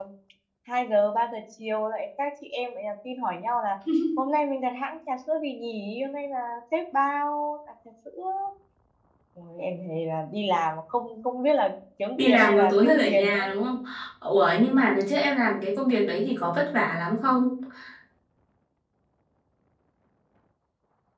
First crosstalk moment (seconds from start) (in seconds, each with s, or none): 12.2 s